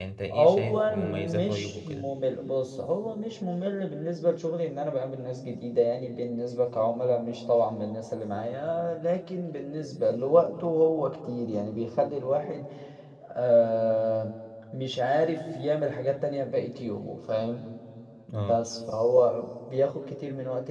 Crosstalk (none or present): present